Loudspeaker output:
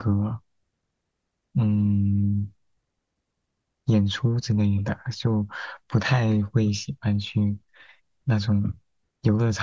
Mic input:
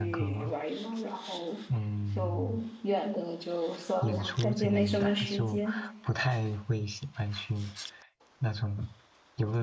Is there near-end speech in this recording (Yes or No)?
Yes